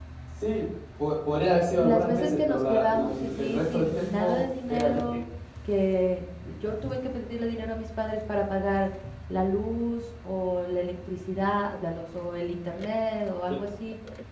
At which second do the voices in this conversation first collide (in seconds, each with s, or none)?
1.8 s